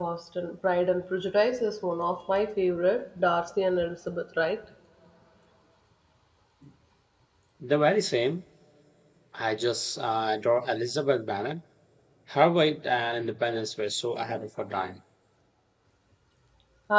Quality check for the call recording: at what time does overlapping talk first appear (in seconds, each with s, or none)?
none